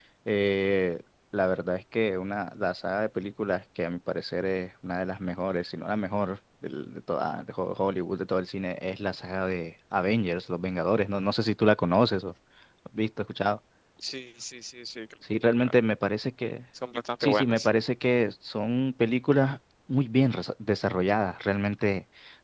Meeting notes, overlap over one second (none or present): none